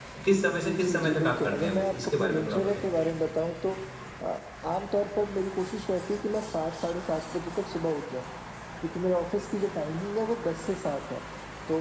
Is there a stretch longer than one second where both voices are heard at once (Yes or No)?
Yes